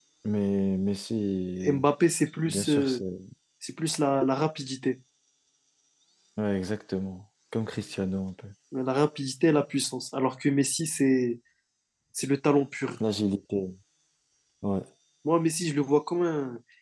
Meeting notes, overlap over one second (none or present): none